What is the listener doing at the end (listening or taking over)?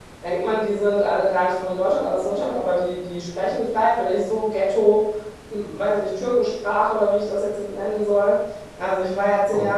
listening